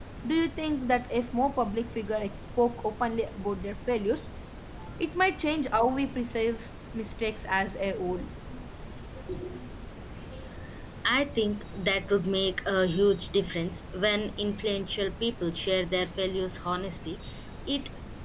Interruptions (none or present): none